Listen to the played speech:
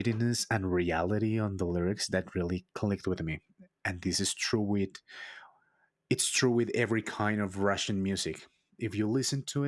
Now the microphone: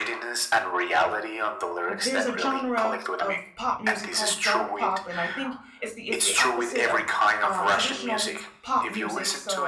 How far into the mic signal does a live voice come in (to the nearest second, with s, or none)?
2 s